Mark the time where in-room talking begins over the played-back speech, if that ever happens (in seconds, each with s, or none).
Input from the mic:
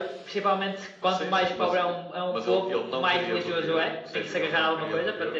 none